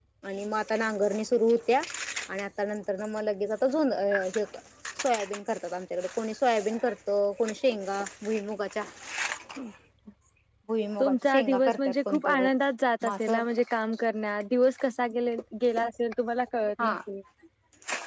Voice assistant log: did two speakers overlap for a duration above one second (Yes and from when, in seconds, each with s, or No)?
Yes, from 11.0 s